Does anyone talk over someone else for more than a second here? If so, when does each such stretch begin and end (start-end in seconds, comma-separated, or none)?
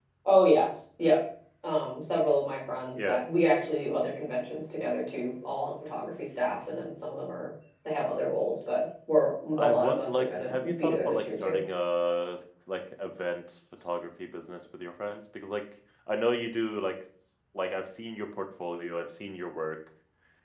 9.5-11.6